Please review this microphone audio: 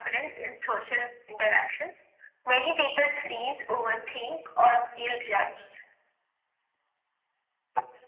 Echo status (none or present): present